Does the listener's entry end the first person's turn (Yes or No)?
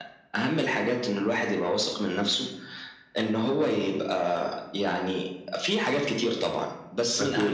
No